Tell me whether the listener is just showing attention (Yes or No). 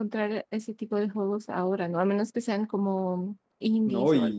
No